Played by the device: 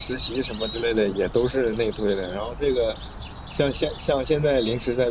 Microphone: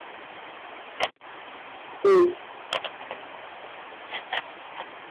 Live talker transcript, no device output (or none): 嗯